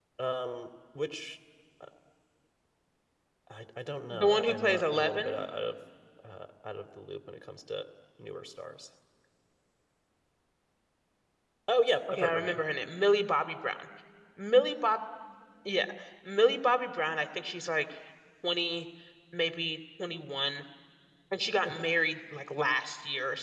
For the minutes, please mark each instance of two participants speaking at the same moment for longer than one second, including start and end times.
4.1-5.4

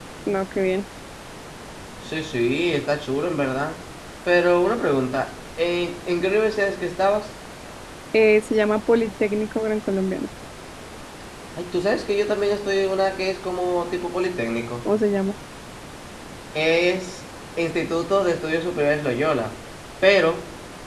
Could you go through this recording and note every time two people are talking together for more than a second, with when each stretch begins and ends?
none

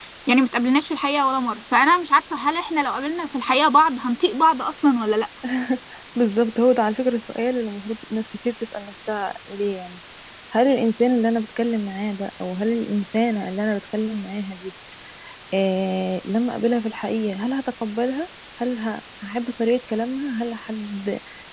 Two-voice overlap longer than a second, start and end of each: none

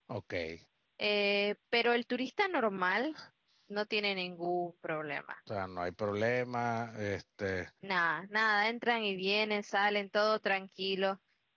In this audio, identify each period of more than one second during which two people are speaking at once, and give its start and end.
none

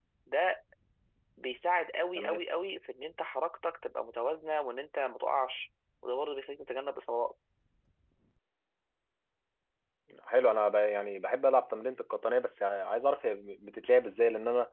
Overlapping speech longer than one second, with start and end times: none

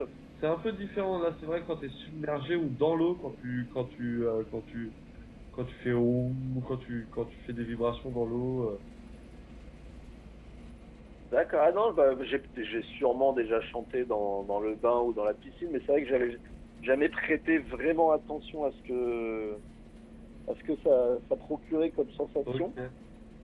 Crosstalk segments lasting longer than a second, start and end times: none

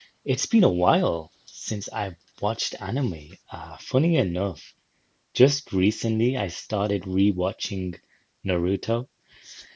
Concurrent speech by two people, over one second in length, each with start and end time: none

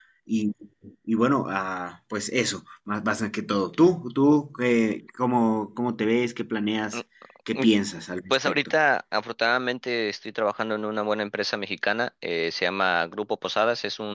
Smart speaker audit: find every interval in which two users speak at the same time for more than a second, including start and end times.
none

